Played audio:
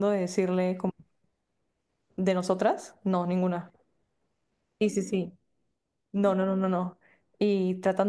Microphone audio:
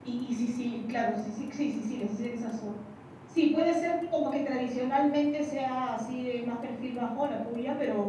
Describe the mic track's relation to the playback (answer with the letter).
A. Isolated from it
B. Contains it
A